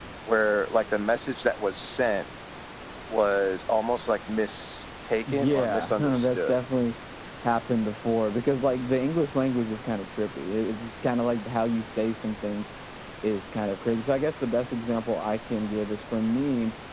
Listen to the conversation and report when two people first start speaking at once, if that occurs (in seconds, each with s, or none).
5.3 s